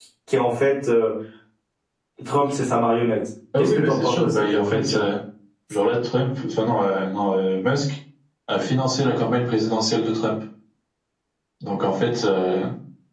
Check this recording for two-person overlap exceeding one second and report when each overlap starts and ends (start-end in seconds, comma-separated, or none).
3.6-5.0